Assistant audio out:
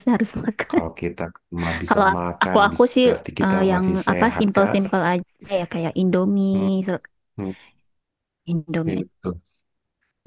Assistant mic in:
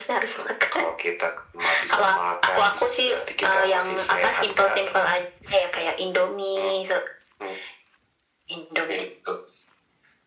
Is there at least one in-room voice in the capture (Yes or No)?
No